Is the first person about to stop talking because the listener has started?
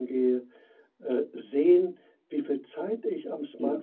No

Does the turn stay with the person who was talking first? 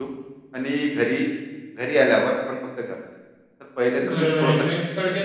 No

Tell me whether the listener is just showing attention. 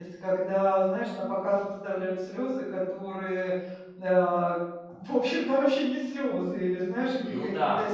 Yes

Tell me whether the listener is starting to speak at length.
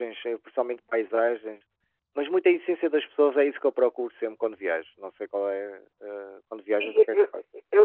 Yes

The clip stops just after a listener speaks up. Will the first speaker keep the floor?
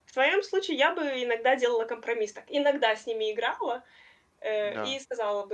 Yes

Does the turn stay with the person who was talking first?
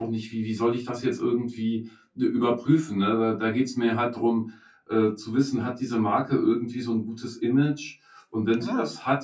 Yes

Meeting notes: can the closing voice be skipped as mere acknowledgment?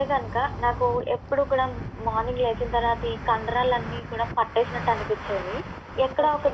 Yes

